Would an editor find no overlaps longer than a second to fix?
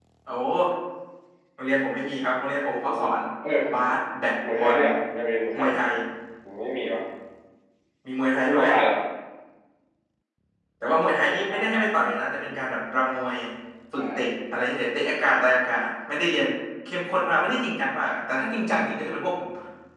Yes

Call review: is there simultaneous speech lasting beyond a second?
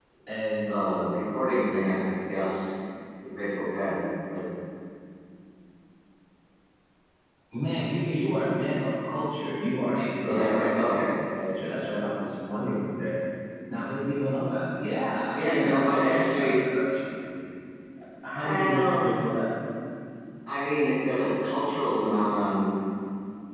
Yes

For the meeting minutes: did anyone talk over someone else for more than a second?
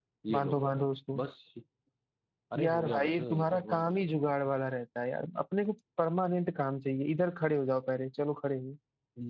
Yes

